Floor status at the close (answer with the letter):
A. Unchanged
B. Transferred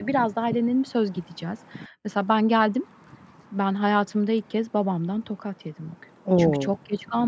A